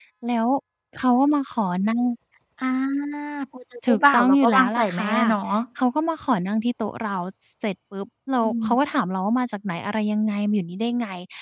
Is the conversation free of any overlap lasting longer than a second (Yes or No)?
No